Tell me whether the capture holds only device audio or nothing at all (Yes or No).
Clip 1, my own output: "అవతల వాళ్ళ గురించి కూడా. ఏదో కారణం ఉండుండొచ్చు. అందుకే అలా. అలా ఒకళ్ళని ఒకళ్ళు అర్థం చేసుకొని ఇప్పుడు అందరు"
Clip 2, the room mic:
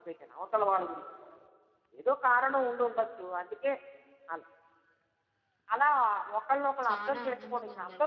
No